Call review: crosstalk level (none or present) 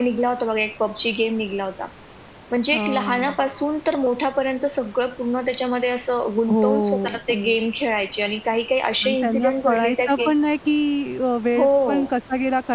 present